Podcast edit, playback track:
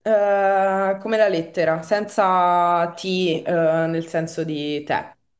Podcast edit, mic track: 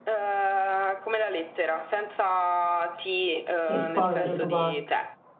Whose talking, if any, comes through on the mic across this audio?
both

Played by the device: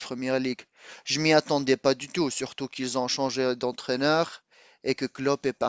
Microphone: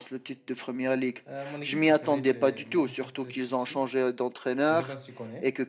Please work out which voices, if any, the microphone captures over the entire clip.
both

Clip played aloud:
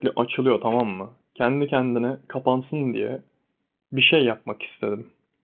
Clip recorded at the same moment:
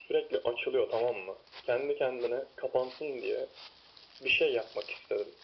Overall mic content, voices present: echo only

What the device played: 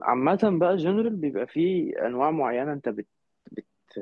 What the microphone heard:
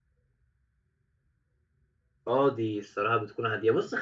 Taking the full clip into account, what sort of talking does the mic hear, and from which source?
user only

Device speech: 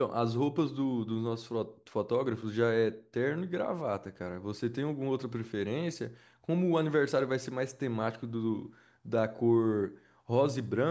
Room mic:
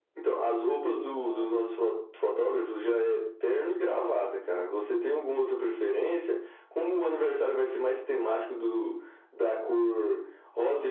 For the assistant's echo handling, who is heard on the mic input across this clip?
both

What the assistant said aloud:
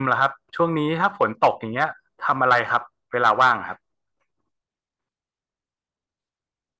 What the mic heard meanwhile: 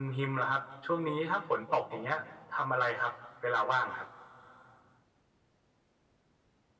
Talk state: echo only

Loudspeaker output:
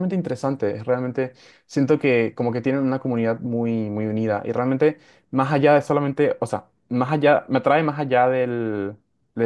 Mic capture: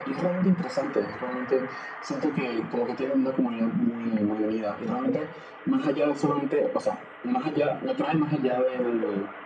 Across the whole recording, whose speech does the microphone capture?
echo only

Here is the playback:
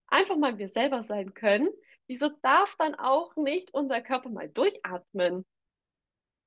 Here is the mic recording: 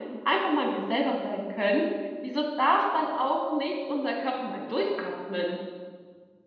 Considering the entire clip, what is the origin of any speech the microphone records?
echo only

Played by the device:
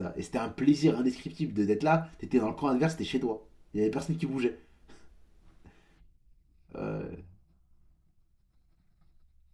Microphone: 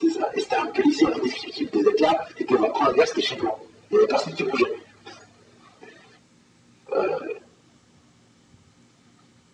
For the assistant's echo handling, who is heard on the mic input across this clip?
echo only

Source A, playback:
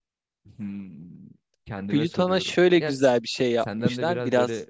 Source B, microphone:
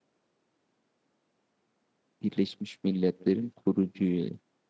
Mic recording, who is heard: user only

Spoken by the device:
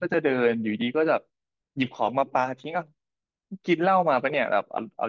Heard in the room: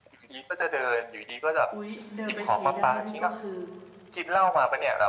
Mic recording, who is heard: both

